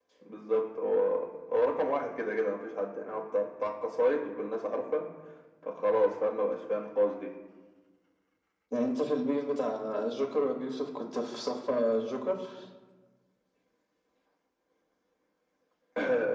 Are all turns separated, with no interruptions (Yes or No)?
Yes